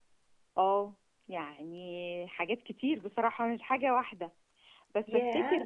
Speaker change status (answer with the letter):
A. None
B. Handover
A